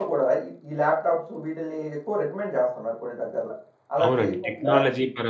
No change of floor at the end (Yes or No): No